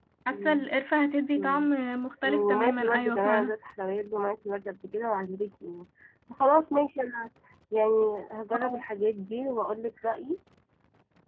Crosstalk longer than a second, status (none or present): present